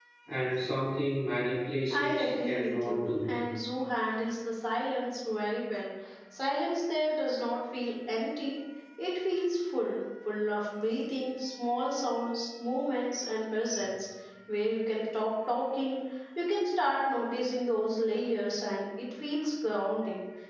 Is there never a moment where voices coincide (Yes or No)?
No